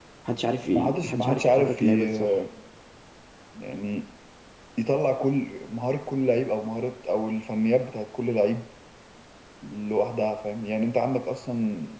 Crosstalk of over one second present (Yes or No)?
Yes